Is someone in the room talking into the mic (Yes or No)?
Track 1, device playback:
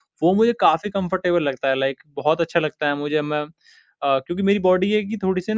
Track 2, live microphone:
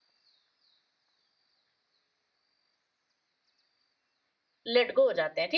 Yes